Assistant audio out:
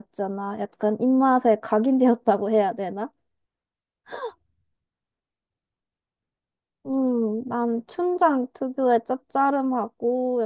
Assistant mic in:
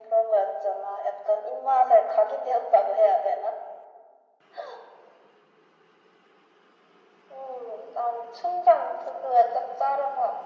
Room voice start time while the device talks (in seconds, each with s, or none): none